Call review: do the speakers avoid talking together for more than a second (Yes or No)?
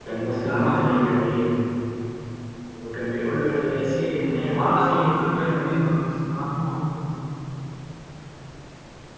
No